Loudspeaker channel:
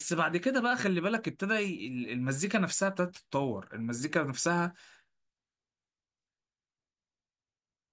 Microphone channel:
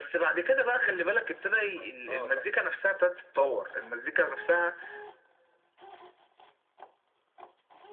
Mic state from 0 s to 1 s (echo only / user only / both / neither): echo only